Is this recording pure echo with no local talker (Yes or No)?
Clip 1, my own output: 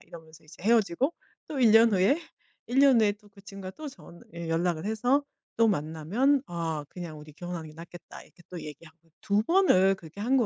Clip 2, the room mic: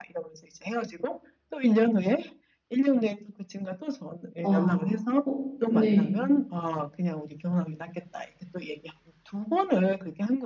No